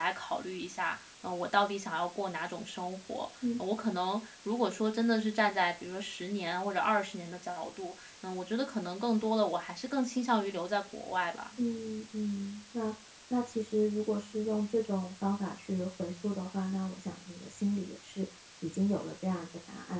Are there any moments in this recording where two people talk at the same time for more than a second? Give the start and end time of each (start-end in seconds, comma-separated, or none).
none